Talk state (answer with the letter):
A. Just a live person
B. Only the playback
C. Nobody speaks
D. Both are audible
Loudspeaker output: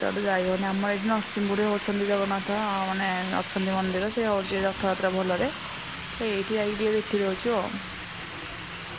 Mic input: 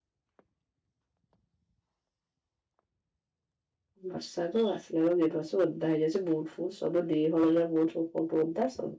A